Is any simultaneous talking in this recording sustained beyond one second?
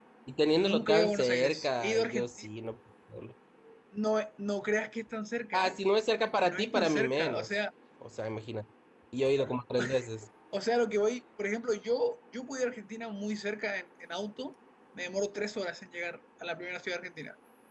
Yes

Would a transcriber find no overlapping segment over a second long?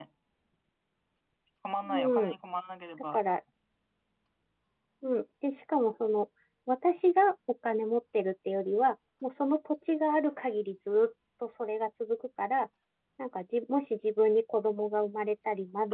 Yes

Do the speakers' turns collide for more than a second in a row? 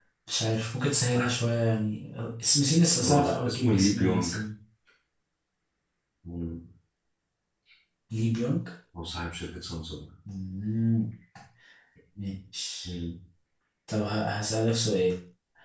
Yes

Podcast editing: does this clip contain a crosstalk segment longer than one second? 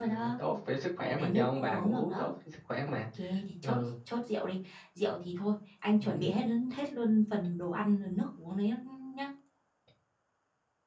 Yes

